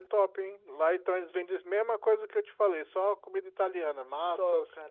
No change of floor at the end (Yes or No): No